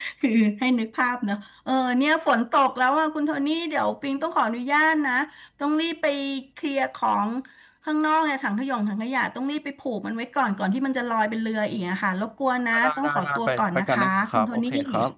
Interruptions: present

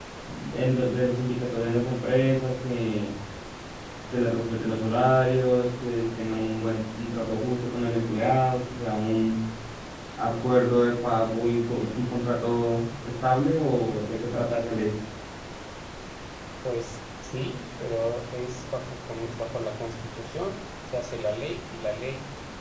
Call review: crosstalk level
none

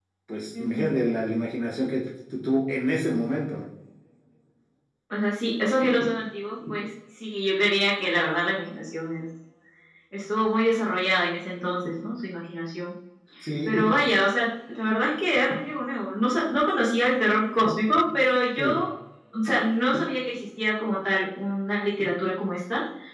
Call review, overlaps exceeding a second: none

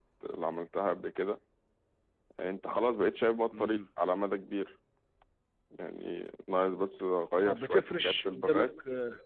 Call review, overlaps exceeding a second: present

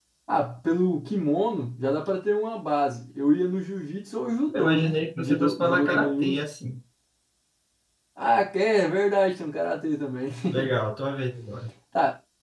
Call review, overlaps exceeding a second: present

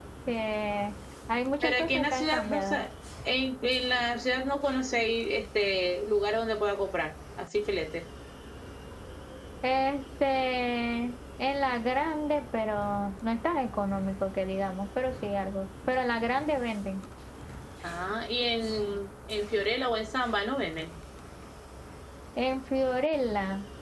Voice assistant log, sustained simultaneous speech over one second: present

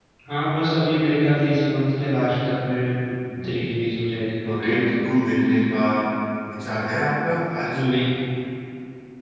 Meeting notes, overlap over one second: none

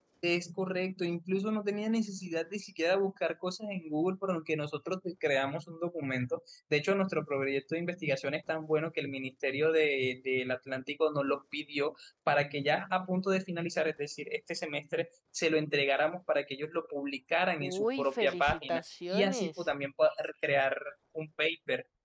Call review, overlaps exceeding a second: present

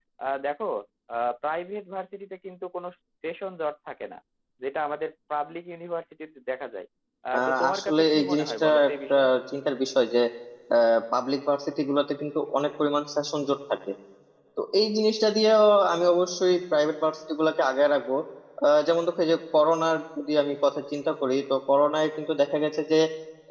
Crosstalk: present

